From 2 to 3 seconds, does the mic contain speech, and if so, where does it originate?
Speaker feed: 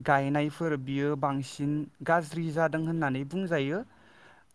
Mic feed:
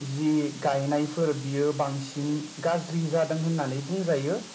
echo only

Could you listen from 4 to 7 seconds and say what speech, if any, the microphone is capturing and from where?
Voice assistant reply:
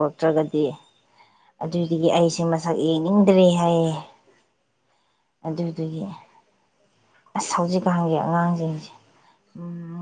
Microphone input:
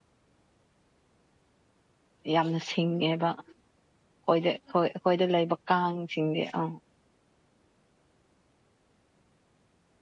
user only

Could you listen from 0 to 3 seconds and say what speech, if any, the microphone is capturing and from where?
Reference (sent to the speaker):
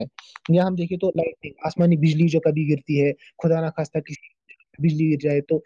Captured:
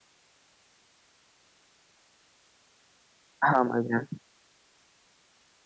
neither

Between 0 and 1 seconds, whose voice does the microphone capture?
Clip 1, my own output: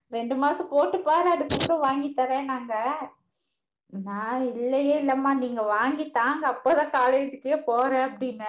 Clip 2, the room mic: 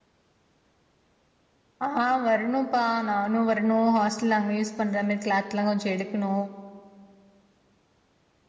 neither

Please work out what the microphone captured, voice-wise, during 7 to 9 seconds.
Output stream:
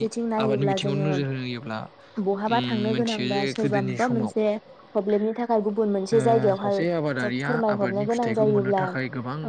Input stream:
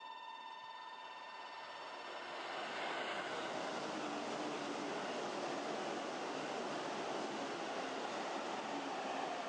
neither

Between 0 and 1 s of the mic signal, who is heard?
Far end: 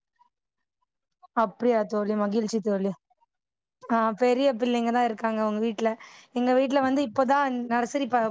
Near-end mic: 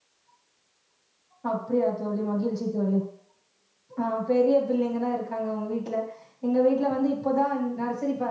neither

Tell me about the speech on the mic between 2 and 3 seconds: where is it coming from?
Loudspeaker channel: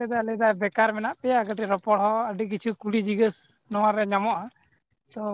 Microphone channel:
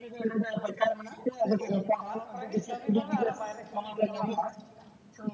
both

